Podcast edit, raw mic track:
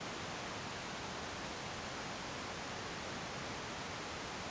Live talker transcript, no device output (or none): none